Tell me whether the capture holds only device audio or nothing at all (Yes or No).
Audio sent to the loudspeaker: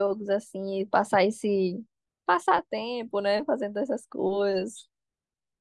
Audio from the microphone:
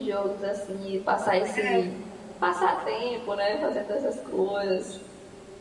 No